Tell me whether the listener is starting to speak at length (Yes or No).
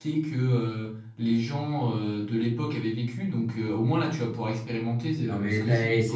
Yes